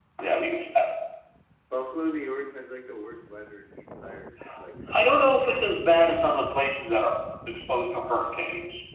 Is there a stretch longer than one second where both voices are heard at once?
No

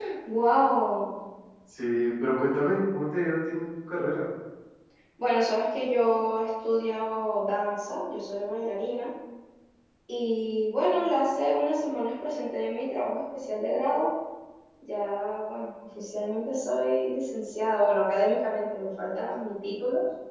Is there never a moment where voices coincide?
Yes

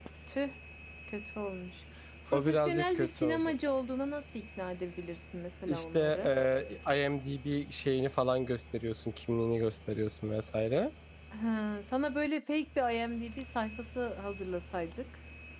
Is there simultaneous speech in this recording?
Yes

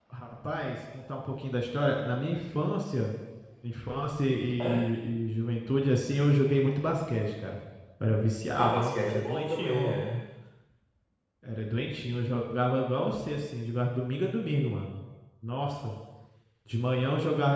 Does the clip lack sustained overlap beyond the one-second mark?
No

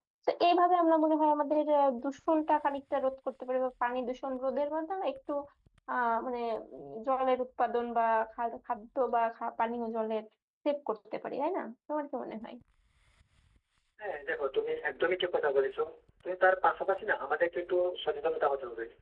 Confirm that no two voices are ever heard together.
Yes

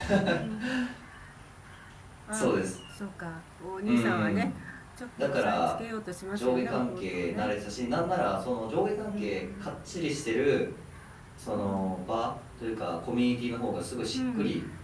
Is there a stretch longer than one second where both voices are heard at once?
Yes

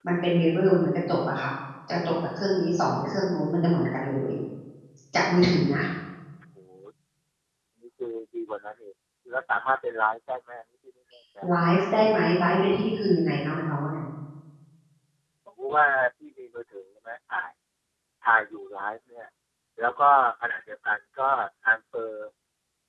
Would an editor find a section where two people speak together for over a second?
No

